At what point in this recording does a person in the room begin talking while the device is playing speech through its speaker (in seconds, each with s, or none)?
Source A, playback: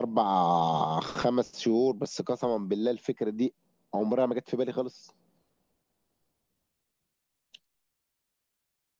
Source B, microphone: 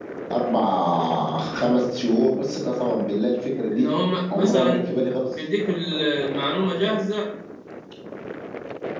3.7 s